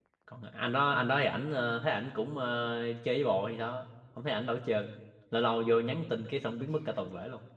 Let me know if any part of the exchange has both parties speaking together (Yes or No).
No